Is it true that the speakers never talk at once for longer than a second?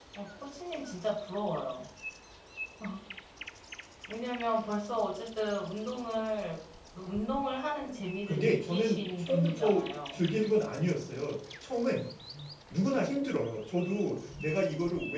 No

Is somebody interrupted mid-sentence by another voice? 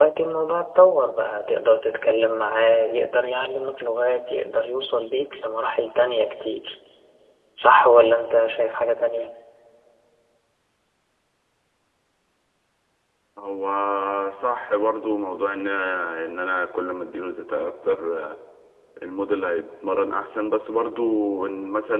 No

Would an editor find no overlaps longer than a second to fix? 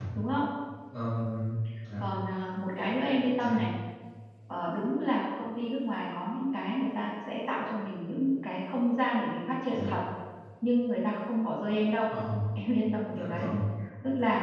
Yes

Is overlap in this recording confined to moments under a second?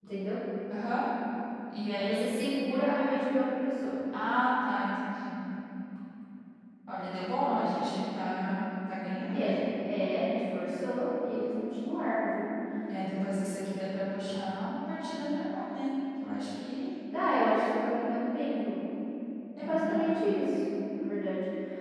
Yes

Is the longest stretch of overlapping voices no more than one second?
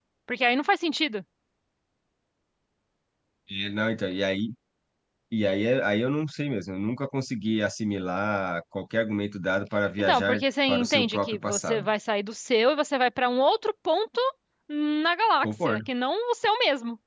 No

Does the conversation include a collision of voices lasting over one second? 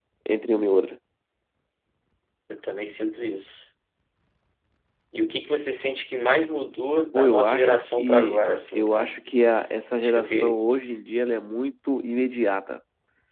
Yes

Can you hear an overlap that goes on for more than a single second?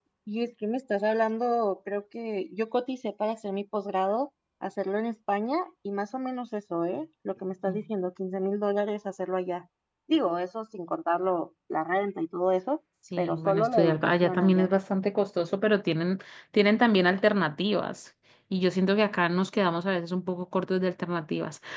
Yes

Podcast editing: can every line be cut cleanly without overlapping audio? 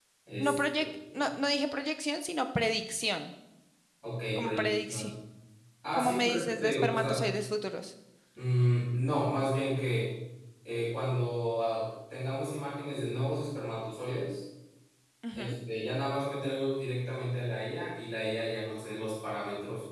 No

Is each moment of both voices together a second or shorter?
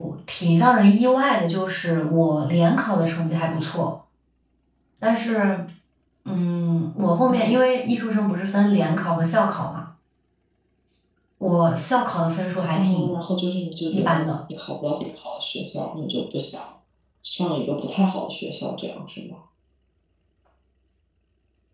Yes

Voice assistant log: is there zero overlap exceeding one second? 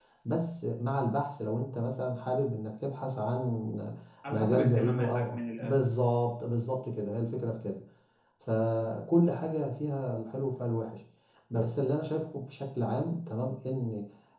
No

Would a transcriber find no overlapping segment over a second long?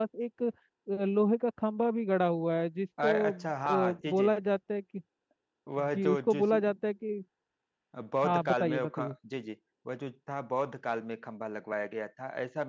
No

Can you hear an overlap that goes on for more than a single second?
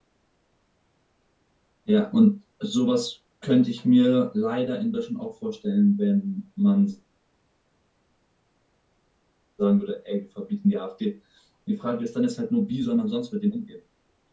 No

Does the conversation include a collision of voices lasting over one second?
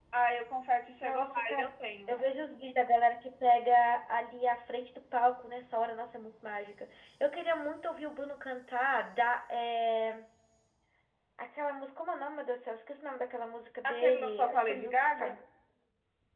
Yes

